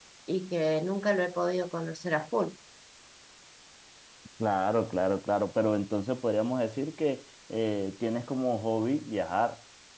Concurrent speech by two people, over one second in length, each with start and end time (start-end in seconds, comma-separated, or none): none